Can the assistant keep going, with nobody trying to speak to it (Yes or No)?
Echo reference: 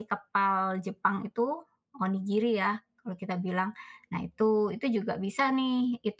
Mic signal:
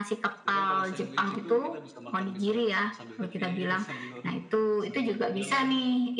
No